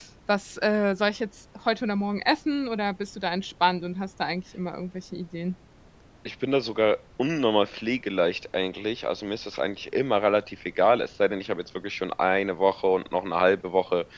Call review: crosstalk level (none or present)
none